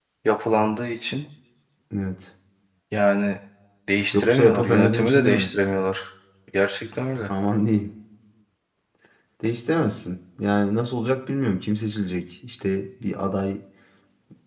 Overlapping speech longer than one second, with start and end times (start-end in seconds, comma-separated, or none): 4.1-5.5